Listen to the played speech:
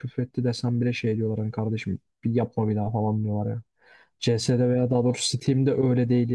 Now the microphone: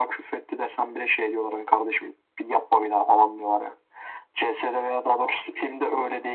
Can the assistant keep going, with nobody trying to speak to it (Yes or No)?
Yes